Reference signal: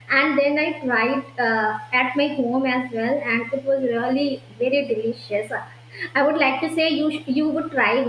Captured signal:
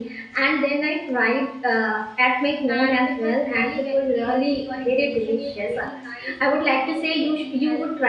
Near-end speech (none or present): present